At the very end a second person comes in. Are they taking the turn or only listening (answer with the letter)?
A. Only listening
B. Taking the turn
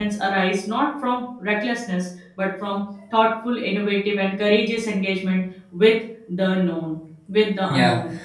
B